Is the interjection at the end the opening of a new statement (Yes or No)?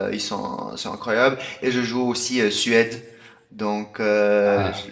No